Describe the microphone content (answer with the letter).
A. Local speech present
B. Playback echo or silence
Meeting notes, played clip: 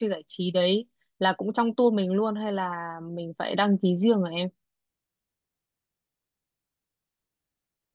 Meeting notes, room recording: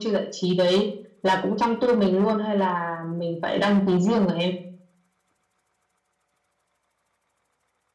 B